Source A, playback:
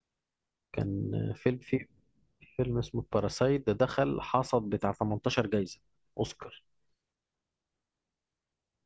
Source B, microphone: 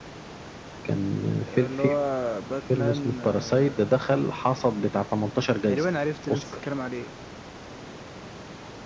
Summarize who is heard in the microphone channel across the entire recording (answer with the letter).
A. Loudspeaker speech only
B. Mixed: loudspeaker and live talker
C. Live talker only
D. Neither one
B